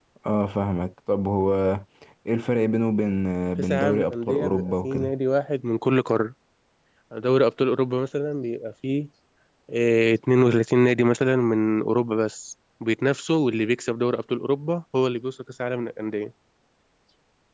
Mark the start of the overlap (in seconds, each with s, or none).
3.7 s